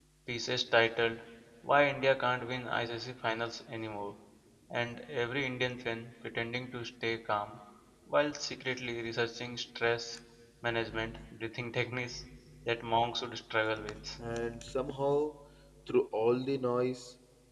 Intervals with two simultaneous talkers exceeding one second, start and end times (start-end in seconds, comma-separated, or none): none